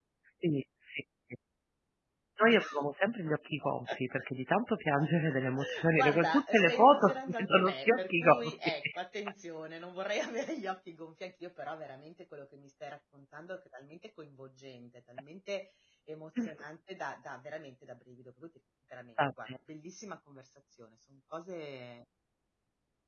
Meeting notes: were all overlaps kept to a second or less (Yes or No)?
No